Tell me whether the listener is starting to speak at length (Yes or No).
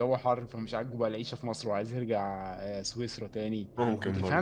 No